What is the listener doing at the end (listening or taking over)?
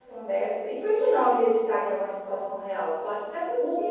taking over